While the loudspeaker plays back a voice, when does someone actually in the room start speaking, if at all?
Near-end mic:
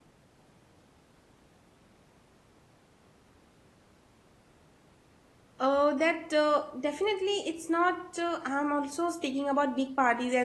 5.6 s

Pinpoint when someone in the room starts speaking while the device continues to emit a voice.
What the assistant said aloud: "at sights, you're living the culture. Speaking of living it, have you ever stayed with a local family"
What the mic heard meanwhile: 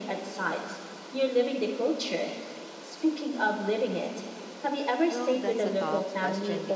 5.1 s

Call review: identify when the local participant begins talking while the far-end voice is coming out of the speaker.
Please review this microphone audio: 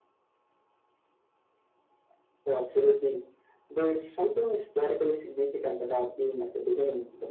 none

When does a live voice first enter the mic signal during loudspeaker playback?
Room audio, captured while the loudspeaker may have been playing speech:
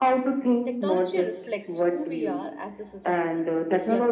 0.6 s

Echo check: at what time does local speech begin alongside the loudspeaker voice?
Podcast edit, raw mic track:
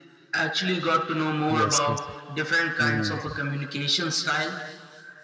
1.5 s

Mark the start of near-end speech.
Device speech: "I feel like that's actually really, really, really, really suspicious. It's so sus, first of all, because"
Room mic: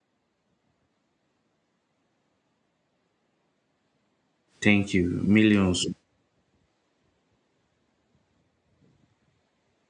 4.6 s

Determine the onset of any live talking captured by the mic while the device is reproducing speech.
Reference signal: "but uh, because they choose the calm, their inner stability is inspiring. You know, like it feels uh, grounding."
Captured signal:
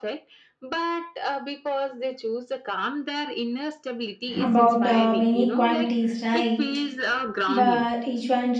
4.4 s

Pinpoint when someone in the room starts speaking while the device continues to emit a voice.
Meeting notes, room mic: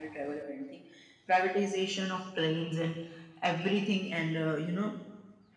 none

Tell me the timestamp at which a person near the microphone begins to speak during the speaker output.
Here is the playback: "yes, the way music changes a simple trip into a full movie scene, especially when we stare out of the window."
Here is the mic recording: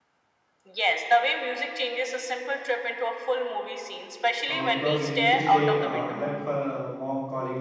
4.5 s

